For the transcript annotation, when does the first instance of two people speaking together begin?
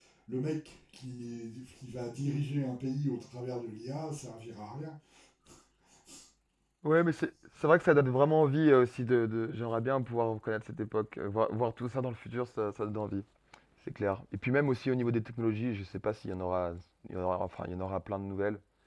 none

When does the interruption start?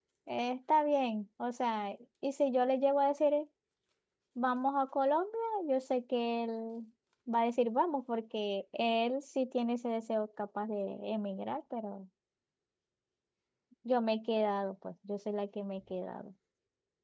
none

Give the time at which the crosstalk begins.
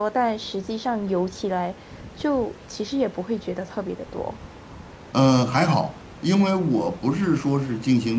none

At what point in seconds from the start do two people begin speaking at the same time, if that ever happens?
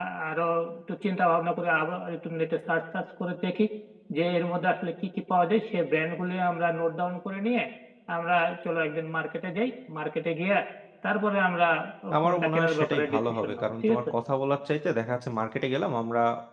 12.2 s

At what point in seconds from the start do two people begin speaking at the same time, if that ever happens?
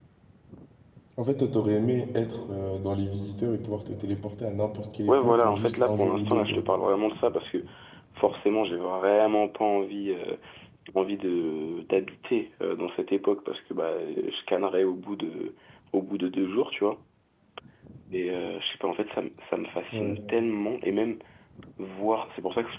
5.1 s

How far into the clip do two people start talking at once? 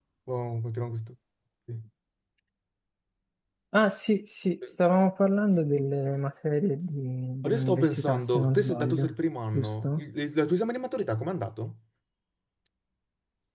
7.4 s

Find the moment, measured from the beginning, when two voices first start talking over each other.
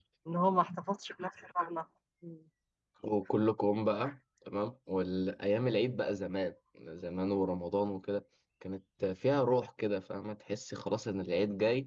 none

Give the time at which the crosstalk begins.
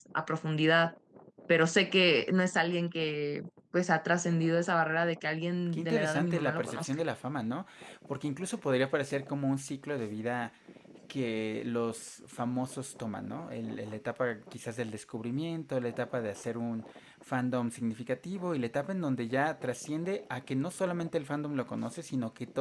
5.7 s

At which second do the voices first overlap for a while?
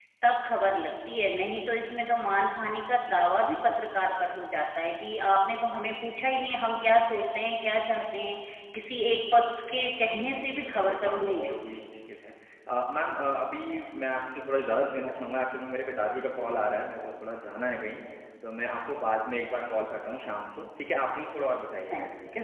10.2 s

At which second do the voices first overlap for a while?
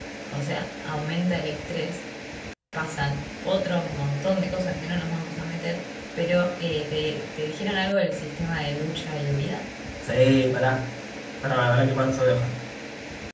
none

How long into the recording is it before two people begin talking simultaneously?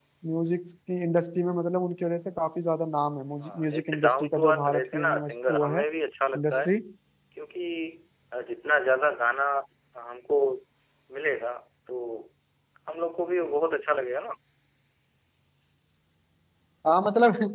3.4 s

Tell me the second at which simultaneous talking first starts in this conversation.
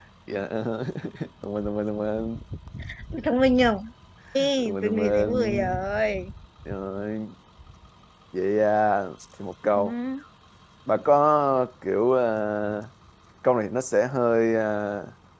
4.4 s

